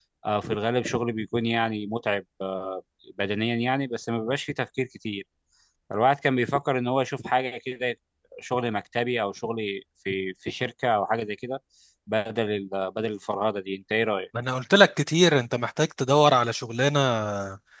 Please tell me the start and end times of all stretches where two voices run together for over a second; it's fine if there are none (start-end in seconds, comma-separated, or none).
none